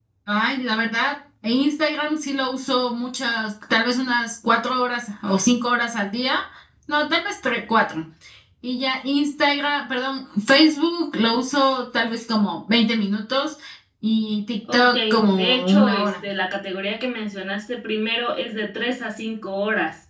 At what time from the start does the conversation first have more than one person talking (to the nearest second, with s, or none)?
15 s